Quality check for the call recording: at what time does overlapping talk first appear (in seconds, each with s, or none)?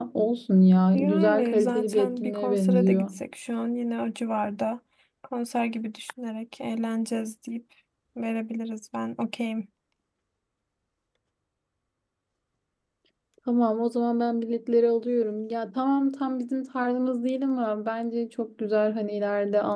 0.9 s